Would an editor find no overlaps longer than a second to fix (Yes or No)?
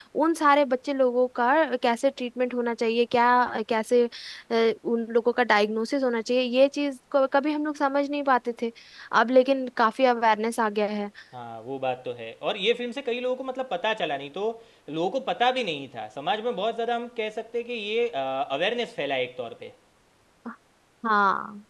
Yes